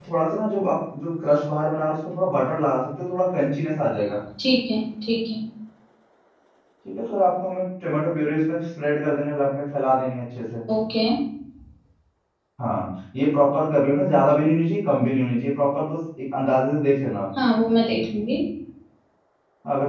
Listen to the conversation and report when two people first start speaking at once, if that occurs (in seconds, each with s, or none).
none